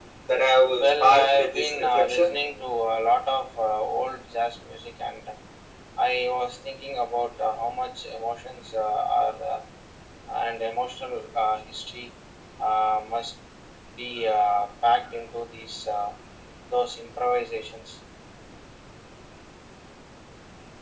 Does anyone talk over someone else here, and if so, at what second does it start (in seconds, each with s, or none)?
0.8 s